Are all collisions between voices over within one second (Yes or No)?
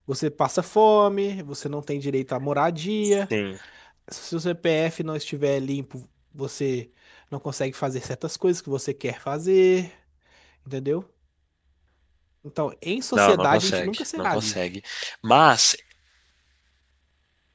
No